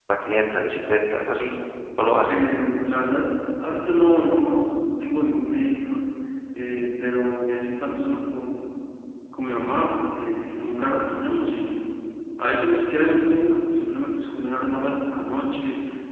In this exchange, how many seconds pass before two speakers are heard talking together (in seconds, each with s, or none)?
none